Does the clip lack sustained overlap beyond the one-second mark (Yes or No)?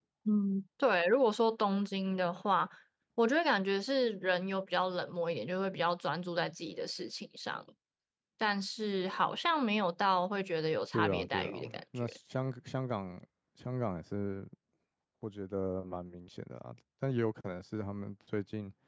No